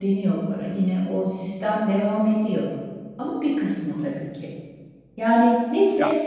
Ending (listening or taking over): listening